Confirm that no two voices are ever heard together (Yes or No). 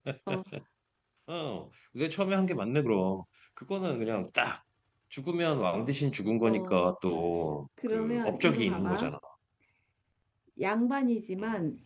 No